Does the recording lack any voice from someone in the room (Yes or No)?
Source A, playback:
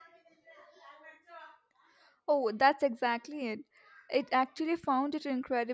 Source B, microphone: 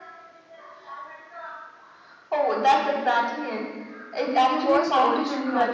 No